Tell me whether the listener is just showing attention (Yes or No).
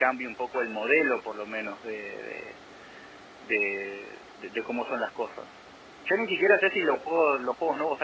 Yes